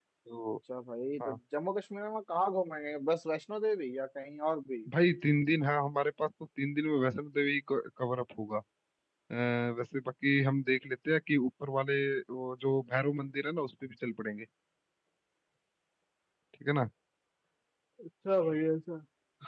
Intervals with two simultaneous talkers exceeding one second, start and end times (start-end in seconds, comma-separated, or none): none